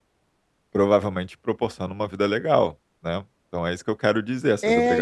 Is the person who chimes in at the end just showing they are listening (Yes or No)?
No